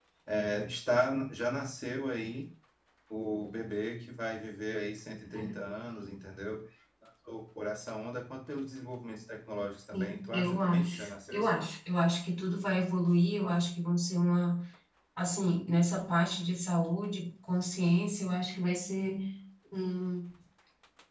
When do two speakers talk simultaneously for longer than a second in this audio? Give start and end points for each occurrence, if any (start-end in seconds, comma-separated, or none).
9.9-11.5